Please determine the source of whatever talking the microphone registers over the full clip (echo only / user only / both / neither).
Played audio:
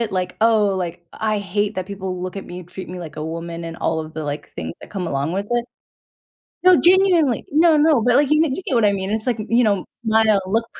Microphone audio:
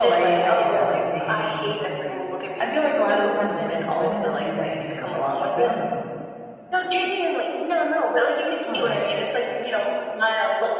both